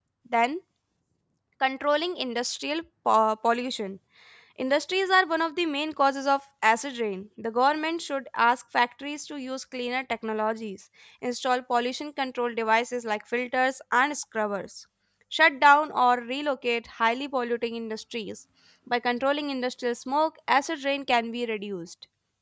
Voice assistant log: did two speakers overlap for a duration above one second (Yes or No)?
No